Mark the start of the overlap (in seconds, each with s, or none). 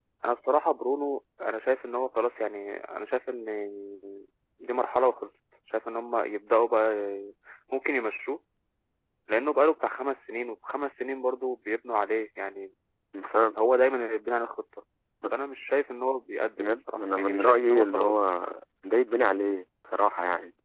16.6 s